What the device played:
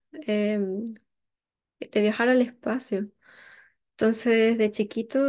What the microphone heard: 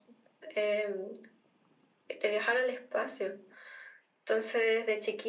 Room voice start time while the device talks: none

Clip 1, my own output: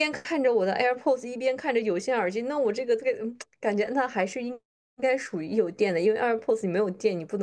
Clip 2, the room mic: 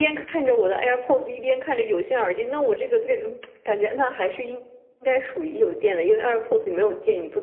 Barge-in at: none

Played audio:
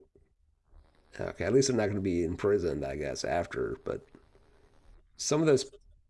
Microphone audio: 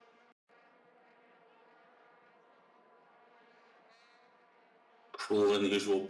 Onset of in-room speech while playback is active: 5.2 s

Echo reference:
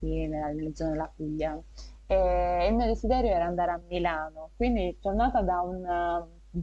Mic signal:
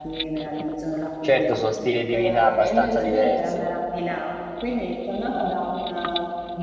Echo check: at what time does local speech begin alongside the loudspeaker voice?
1.2 s

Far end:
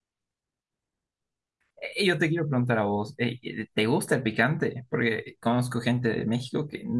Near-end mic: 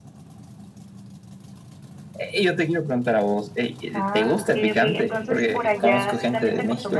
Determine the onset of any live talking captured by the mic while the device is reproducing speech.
3.9 s

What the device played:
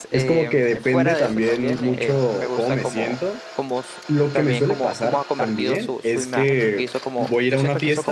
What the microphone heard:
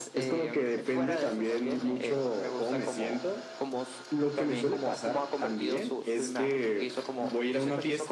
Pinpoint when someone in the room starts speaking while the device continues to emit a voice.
none

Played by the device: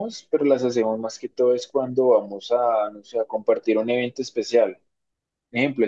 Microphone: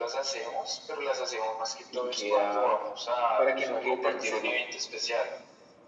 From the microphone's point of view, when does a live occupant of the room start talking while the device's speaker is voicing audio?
1.9 s

